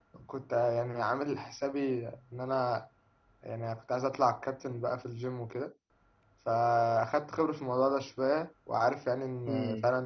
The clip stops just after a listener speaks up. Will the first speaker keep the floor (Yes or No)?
Yes